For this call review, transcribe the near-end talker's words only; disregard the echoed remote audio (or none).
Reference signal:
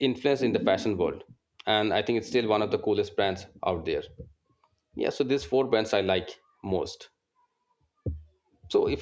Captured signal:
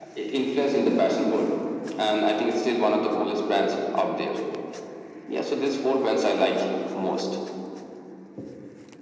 none